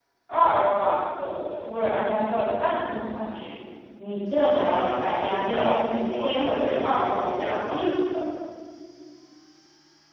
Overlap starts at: 4.5 s

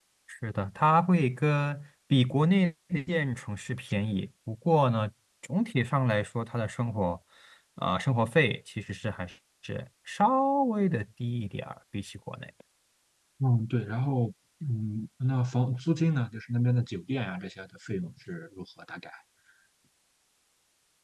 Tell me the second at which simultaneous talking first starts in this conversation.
none

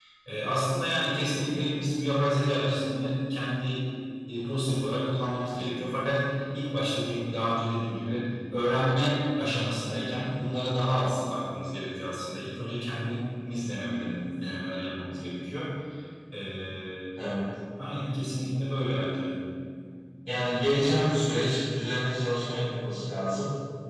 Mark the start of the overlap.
none

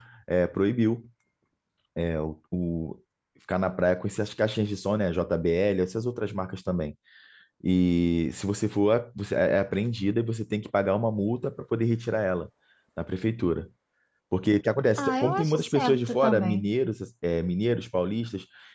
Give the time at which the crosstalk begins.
15.0 s

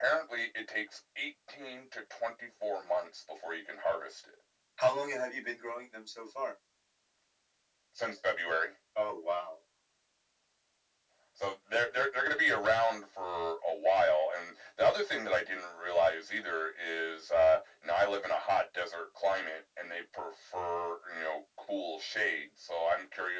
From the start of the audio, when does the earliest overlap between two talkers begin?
none

